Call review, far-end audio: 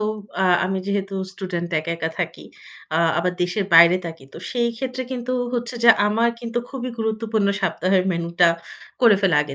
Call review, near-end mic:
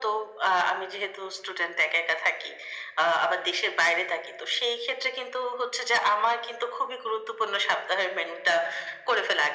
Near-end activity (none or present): none